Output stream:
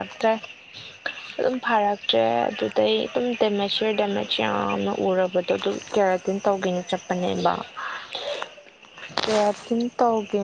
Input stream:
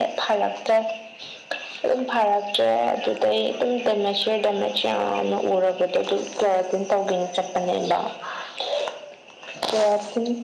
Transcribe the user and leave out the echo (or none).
none